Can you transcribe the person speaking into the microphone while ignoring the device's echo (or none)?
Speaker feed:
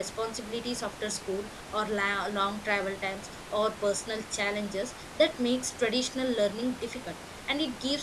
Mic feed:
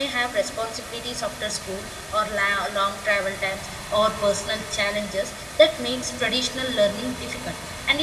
none